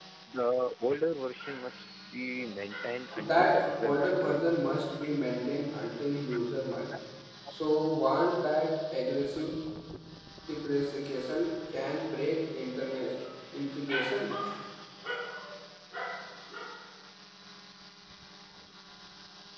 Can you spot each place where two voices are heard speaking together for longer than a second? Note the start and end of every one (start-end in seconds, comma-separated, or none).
3.2-4.4